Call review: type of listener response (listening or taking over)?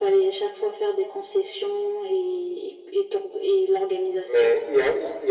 taking over